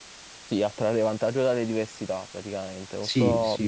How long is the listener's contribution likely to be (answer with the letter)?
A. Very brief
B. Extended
A